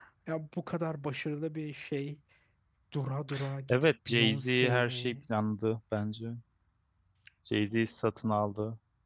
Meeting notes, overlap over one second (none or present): present